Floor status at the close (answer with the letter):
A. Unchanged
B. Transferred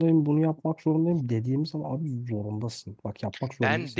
A